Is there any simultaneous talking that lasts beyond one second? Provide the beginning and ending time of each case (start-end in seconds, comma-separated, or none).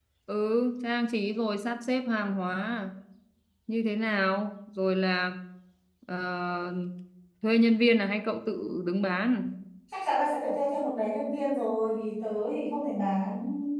none